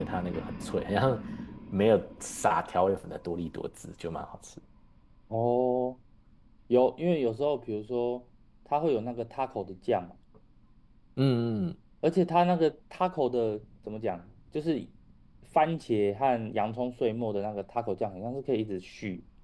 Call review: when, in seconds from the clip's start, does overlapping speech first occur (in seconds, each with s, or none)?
none